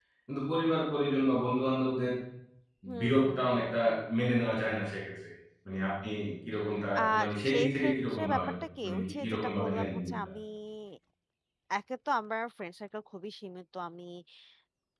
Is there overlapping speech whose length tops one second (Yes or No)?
Yes